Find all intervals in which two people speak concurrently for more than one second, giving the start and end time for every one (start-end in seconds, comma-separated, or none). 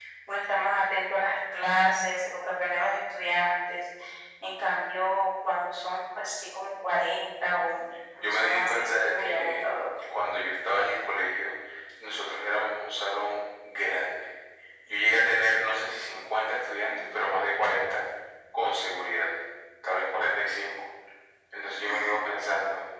8.2-9.6